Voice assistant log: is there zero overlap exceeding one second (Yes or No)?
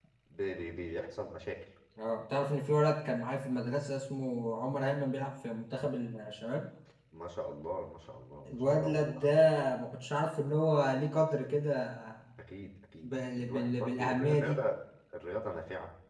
No